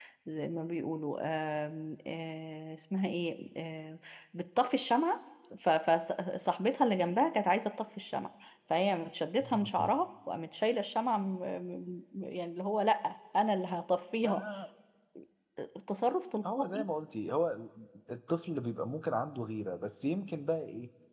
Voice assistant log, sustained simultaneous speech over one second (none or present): none